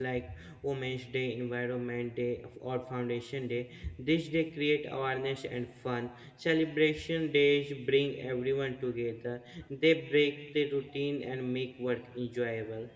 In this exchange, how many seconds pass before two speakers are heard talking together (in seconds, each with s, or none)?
none